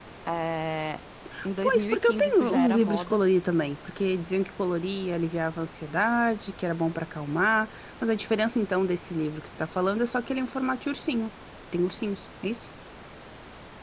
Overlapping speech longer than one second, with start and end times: 1.6-3.2

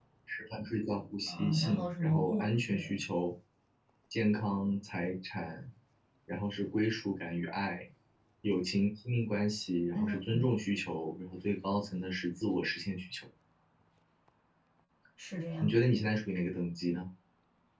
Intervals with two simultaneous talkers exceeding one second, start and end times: 1.3-3.0

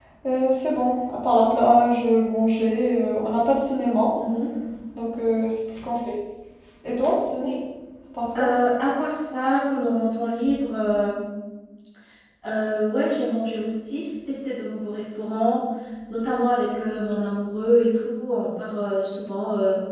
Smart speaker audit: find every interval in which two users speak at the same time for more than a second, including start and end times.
none

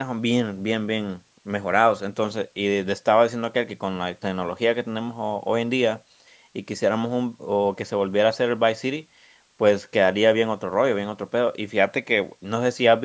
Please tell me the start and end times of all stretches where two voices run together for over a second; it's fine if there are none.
none

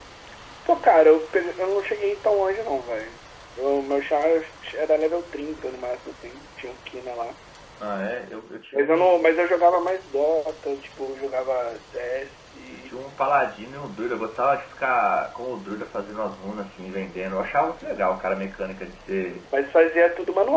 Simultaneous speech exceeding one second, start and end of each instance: none

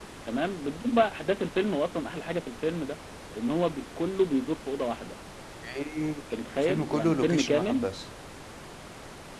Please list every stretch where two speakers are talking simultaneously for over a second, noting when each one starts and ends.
6.3-7.9

